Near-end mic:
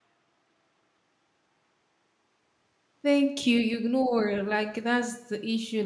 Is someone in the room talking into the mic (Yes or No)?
Yes